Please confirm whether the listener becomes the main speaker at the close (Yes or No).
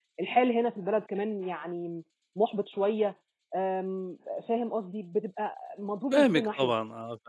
Yes